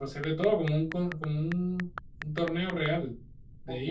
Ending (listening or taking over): taking over